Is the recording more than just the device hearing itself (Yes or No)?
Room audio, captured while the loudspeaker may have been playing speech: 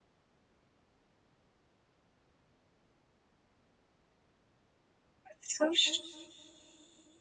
Yes